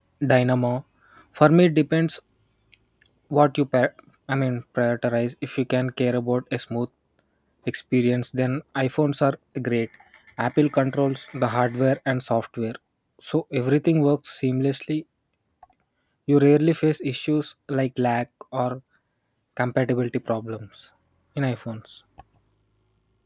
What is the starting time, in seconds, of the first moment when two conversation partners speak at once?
none

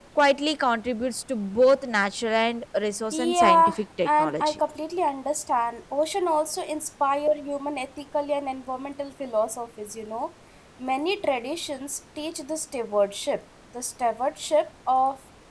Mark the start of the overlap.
3.1 s

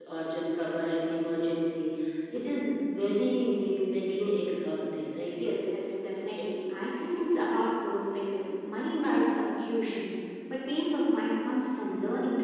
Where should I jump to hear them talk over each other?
none

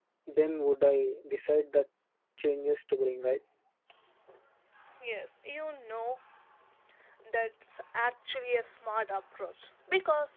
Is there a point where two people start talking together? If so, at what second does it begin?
none

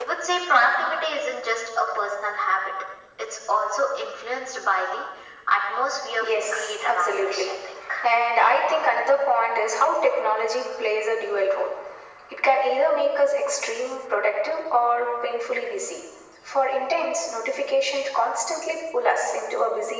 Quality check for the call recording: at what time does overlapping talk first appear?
6.2 s

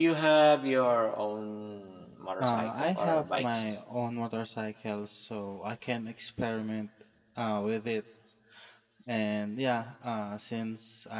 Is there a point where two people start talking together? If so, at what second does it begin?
2.4 s

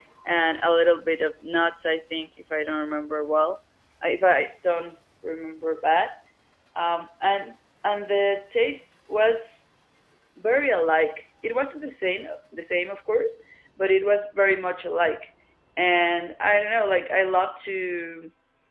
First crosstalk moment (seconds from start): none

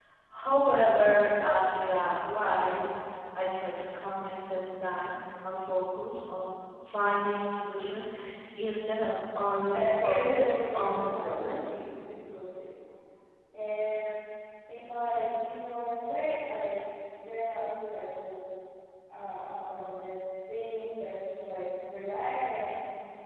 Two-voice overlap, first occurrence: 9.6 s

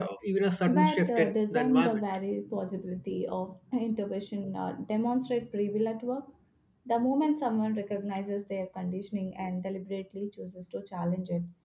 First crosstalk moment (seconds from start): 0.7 s

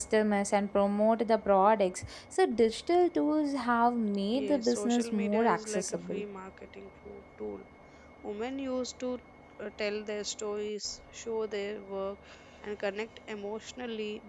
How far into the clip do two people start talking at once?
4.3 s

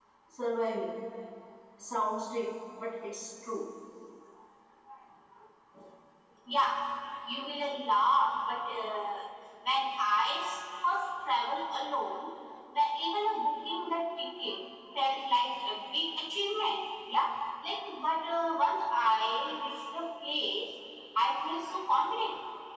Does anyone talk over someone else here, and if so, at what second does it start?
none

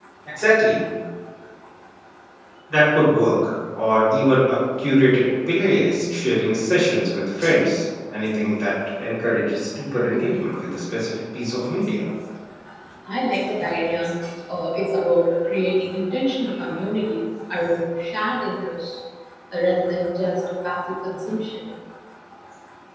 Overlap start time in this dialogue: none

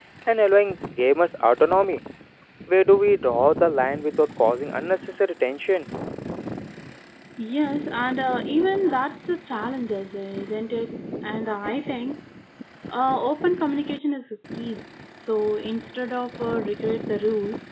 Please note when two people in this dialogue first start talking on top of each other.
none

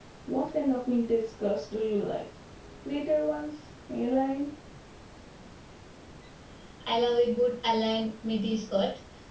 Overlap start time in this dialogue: none

